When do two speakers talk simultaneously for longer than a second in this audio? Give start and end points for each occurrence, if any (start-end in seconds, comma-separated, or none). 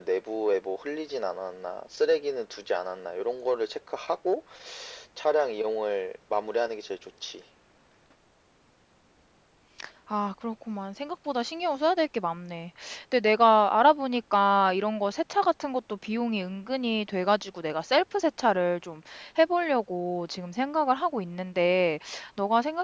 none